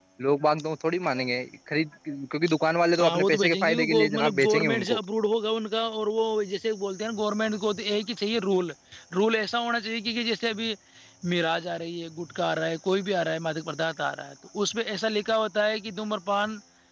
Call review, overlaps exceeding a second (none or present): present